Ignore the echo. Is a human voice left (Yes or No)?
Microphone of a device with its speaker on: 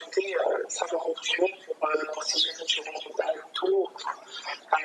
No